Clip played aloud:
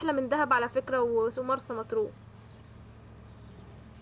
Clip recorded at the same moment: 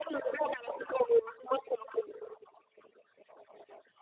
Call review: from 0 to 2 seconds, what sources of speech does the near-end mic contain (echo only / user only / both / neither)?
echo only